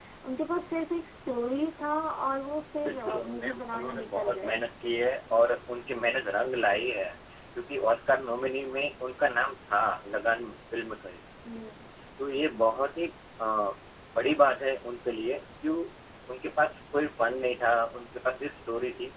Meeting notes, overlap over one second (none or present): present